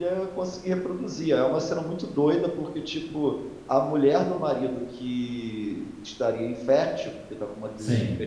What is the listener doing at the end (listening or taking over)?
listening